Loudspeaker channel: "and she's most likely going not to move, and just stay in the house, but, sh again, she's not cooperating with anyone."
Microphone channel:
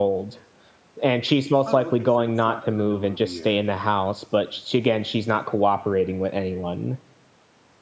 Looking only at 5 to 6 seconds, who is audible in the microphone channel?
echo only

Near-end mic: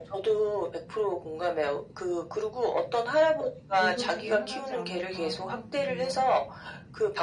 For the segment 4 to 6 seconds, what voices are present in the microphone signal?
both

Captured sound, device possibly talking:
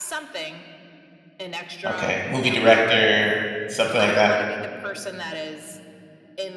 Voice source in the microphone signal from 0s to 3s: both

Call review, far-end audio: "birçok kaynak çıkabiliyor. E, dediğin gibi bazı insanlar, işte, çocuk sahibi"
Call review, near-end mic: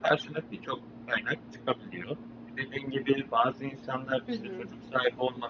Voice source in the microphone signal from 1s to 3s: echo only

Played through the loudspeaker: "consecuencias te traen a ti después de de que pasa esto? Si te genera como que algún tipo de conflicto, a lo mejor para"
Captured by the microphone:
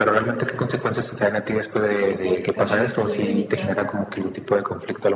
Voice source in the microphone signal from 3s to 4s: both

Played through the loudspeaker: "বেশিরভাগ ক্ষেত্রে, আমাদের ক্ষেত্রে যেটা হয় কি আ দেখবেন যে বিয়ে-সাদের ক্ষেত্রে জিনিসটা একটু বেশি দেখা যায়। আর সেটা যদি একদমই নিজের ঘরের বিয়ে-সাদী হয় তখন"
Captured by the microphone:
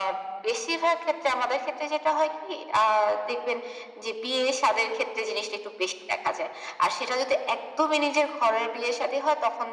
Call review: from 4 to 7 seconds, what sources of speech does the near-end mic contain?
echo only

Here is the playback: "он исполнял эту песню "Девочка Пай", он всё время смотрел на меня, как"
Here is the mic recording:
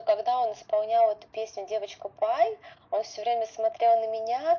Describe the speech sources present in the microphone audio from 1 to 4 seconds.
echo only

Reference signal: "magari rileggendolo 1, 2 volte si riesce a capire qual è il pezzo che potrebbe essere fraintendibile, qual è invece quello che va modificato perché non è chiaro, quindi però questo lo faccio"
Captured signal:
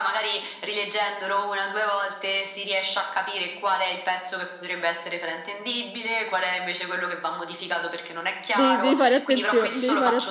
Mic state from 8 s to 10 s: both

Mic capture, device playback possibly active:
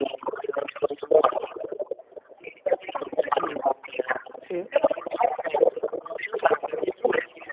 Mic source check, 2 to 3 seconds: echo only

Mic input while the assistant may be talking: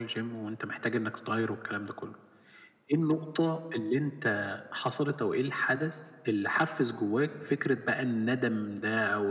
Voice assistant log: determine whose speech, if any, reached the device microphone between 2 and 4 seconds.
echo only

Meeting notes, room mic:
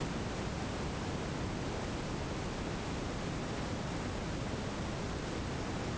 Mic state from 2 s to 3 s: neither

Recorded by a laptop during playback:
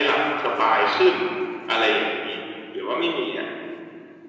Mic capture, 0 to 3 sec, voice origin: echo only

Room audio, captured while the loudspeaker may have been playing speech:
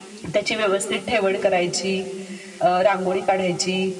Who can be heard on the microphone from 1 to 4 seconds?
echo only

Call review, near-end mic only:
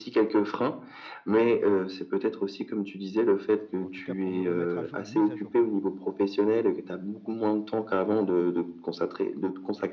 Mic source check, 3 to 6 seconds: both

